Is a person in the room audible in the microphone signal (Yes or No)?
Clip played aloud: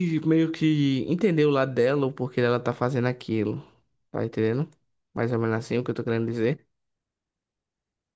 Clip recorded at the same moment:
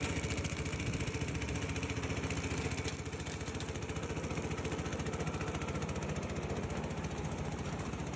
No